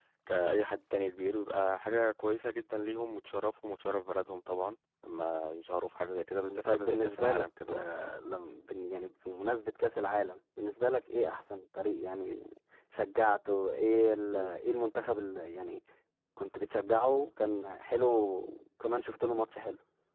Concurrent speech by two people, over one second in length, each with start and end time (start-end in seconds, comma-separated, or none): 6.4-7.8